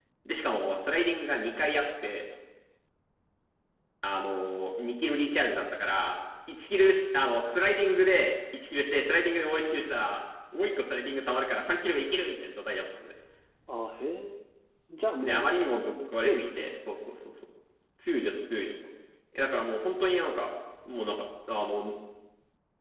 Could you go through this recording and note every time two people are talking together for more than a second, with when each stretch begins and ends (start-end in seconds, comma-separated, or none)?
15.2-16.7